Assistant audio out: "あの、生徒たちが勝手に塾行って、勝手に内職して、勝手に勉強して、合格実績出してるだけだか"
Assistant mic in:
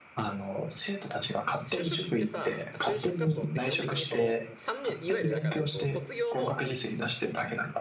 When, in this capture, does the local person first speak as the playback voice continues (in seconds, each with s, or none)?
1.6 s